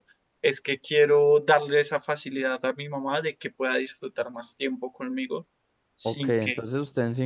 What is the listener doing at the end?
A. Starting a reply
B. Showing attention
A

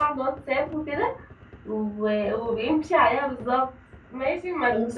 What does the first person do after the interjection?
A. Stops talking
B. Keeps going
A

